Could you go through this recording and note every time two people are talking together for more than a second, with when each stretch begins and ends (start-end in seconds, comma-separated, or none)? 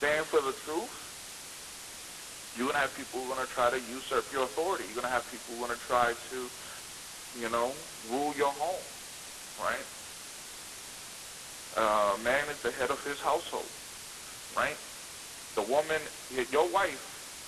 none